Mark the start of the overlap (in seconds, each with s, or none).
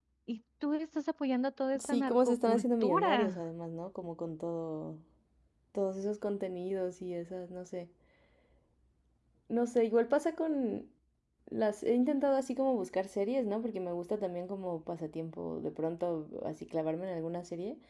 1.8 s